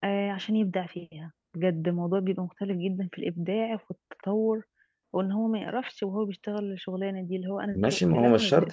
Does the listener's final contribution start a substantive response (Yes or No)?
Yes